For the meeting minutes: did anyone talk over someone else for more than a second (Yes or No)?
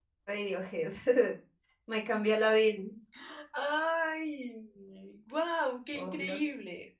No